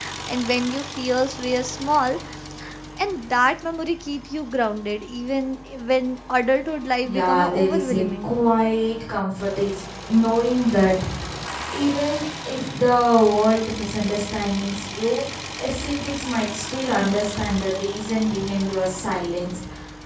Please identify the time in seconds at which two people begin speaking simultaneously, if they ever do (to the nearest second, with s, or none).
7 s